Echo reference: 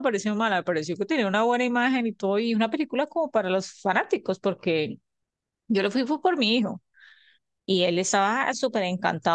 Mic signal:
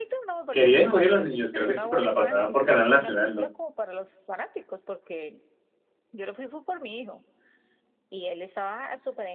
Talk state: both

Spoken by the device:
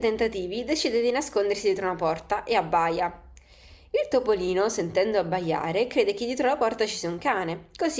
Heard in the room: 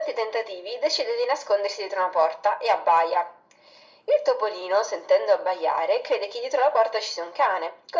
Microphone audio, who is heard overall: echo only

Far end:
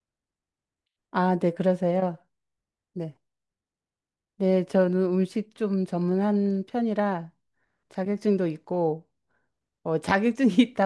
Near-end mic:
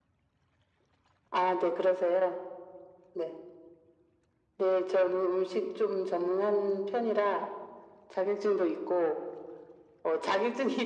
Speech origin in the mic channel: echo only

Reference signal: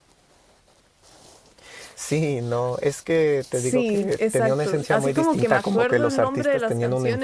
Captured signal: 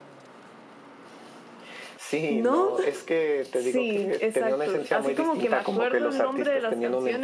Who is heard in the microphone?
both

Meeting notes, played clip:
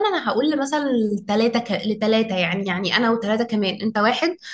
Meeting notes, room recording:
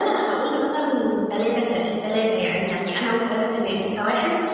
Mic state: both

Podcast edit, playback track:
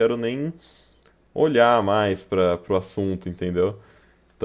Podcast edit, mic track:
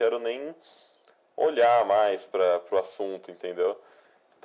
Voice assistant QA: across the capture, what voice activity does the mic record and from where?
echo only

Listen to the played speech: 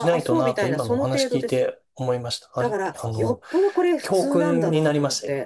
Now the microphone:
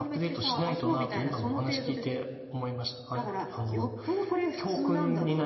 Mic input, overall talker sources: echo only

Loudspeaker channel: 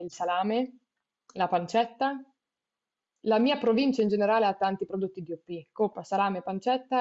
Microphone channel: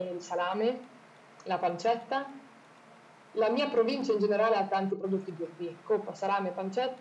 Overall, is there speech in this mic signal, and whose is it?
echo only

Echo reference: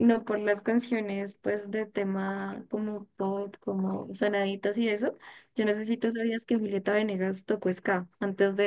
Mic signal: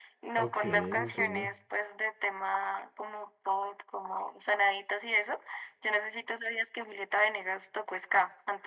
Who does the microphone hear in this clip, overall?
both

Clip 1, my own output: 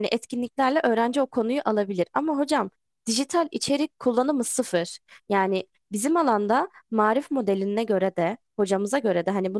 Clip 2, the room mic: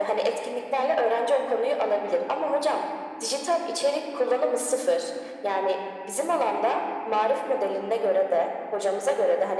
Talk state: echo only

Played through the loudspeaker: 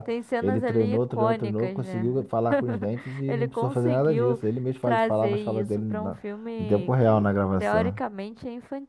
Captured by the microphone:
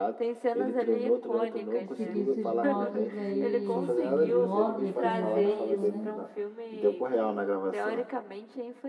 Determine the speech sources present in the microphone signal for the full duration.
both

